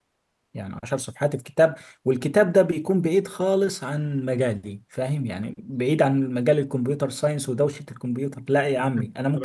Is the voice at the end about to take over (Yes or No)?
Yes